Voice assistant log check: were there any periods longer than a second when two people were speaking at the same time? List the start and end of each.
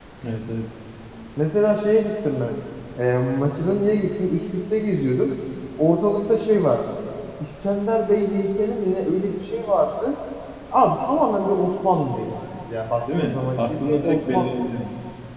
13.2-14.5

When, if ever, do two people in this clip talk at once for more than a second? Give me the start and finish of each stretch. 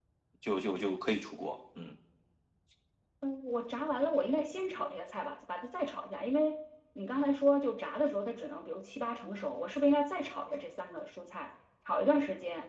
none

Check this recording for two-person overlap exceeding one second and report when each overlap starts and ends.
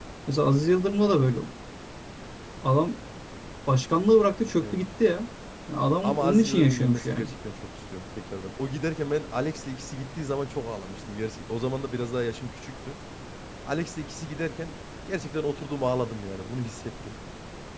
6.0-7.3

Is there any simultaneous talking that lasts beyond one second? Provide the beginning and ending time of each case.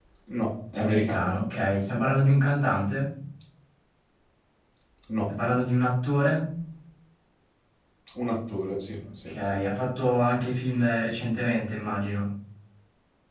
none

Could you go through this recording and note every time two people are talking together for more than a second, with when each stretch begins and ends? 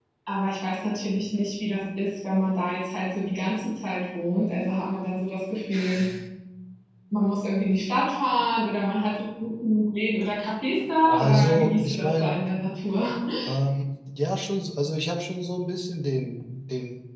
11.0-12.5

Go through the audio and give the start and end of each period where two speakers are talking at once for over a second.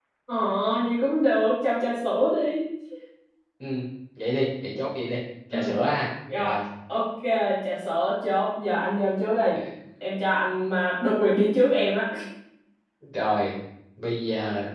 none

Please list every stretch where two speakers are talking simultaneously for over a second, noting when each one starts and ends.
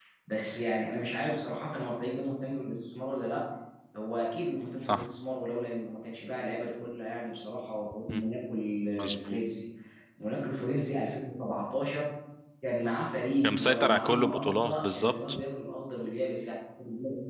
13.4-15.4

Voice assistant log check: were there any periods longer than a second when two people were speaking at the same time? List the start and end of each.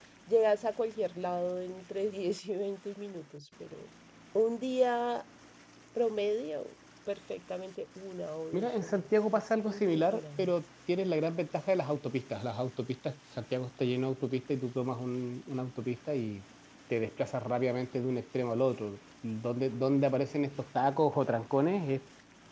8.5-10.5

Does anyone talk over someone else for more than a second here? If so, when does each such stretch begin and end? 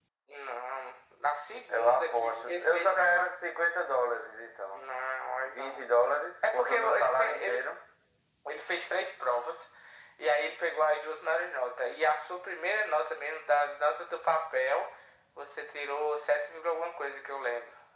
1.7-3.3, 6.5-7.8

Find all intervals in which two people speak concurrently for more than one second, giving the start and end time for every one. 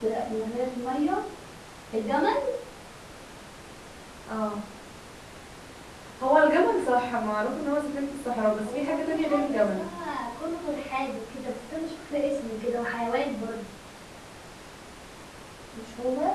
8.6-9.9

